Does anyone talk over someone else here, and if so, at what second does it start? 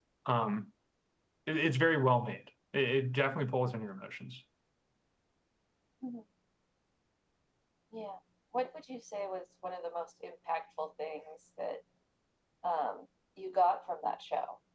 none

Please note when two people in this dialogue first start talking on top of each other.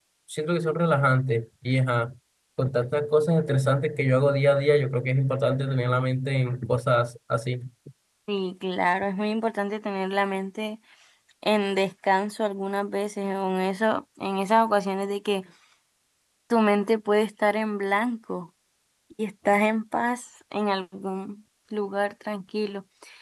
none

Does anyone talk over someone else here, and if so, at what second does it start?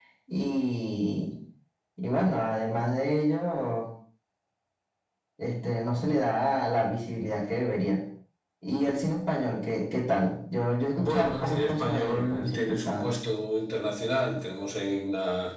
11.0 s

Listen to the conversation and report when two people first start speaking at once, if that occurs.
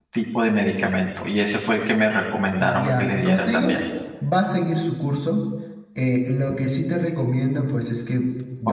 2.6 s

